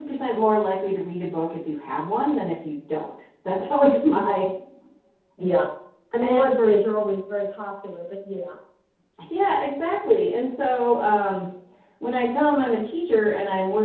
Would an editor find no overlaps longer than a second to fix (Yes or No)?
Yes